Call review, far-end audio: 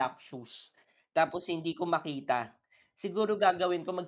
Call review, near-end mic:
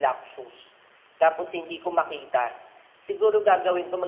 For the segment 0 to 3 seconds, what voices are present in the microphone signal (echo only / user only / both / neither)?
echo only